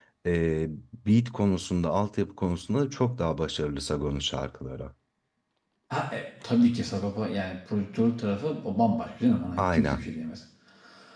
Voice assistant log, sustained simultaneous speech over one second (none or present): none